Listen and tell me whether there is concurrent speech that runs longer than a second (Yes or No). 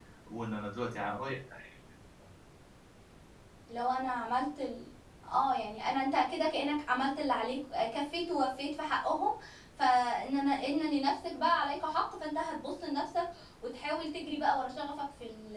No